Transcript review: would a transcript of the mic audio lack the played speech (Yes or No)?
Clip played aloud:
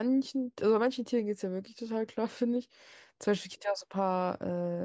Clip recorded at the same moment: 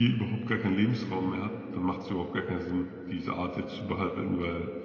Yes